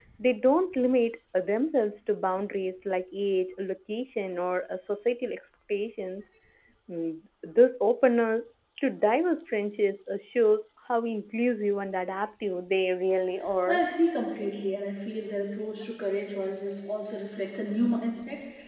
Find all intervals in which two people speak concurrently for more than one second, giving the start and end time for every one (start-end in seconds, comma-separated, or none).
none